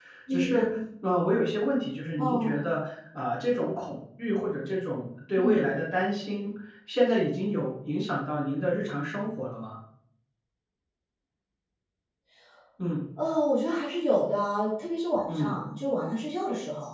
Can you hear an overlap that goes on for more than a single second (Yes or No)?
No